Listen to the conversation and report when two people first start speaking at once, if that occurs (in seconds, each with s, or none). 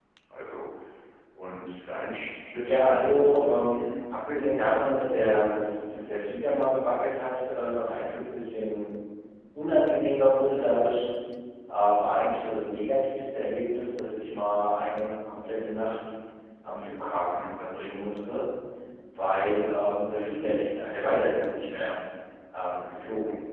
2.6 s